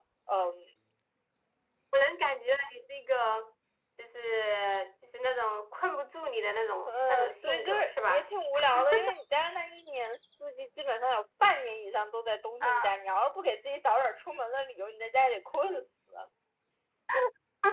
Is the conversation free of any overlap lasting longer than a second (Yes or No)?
No